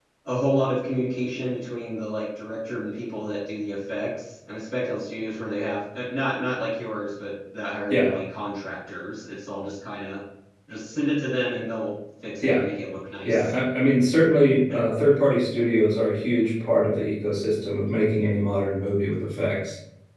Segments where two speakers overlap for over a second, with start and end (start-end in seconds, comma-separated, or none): none